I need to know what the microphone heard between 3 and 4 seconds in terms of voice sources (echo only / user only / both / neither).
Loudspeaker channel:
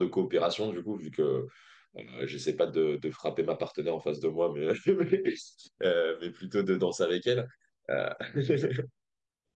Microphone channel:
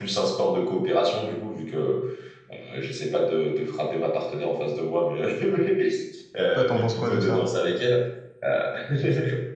echo only